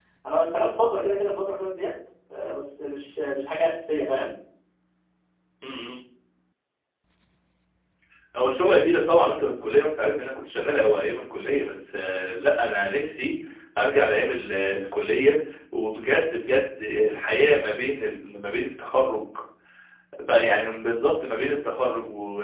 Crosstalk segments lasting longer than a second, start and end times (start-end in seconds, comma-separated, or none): none